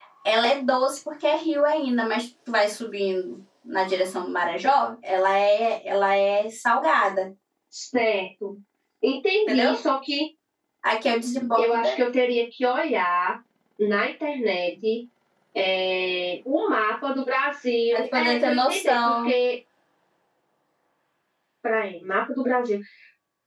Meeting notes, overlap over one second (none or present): present